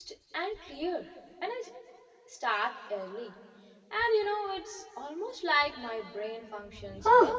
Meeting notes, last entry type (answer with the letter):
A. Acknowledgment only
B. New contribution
B